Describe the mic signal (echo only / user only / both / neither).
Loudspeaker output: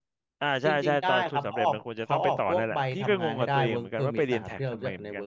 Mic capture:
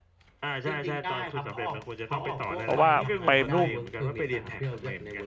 both